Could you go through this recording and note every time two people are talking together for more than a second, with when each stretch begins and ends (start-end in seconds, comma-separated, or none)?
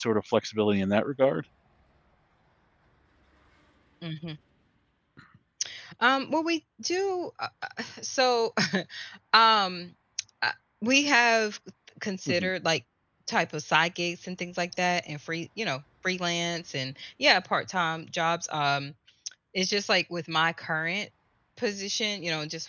none